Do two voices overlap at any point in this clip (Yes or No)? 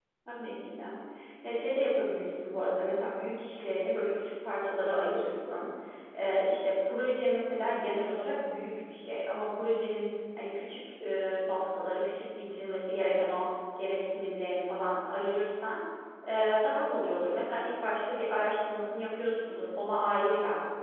No